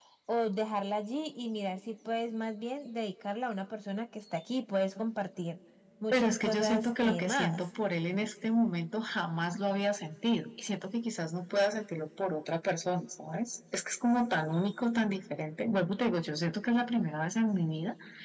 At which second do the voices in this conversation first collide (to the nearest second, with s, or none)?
6 s